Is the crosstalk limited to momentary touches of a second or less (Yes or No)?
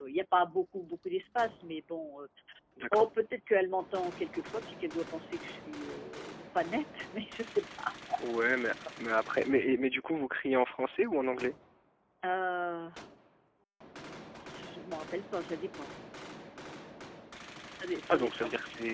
Yes